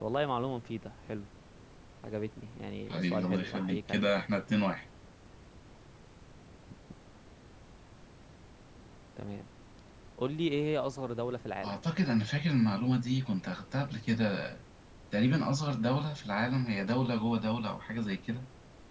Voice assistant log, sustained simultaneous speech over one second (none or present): present